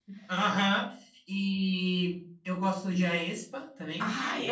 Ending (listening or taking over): taking over